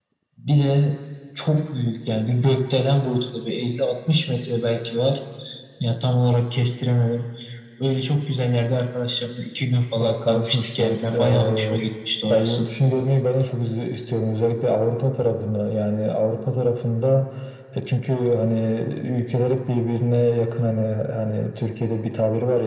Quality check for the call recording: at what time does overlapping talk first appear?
10.0 s

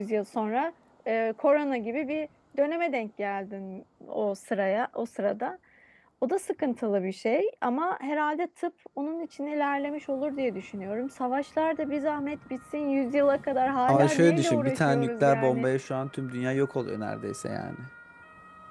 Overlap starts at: 13.9 s

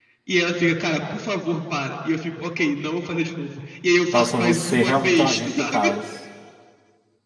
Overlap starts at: 4.1 s

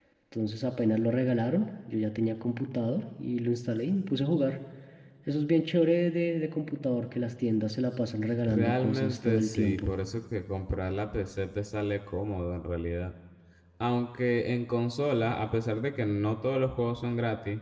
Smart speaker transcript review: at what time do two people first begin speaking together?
8.4 s

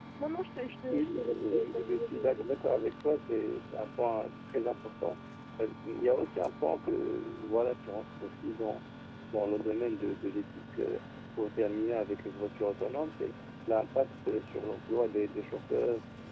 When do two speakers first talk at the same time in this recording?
0.9 s

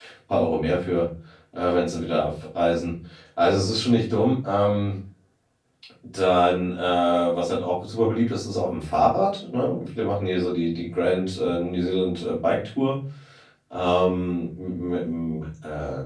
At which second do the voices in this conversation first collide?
none

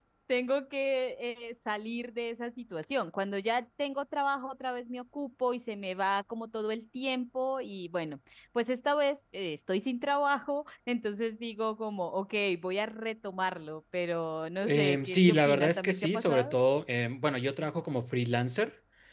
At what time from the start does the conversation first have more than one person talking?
14.6 s

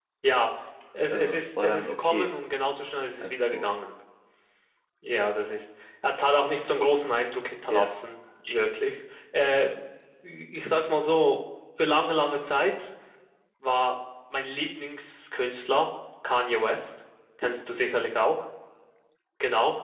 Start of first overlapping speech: 1.1 s

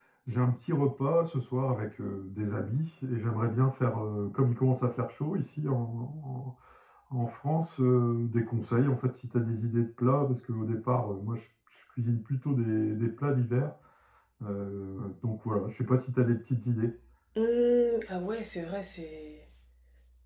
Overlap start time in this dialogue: none

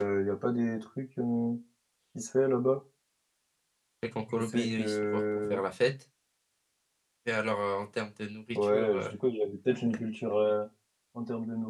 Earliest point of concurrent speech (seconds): 4.3 s

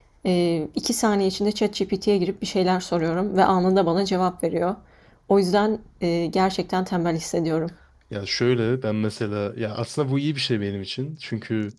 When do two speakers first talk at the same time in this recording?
none

